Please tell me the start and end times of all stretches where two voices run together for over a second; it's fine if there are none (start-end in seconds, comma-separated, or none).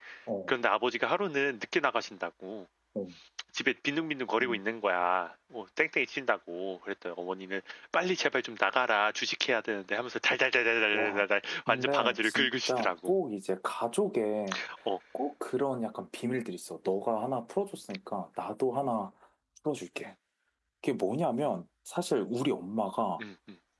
11.7-13.1